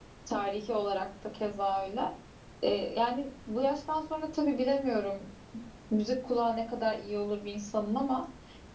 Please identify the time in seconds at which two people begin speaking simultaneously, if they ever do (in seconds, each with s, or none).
none